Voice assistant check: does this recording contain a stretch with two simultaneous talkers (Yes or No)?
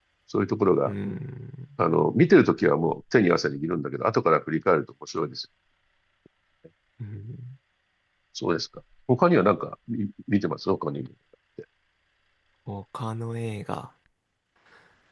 No